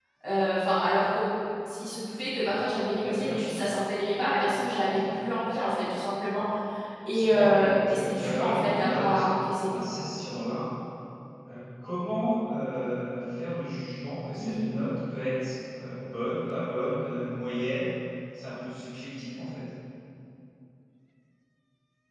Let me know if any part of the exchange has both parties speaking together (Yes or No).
Yes